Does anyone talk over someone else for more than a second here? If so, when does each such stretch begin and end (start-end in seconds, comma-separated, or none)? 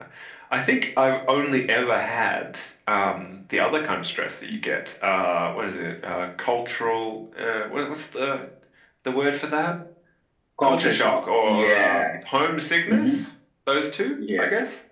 10.6-12.0